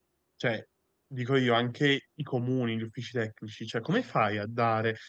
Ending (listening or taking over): listening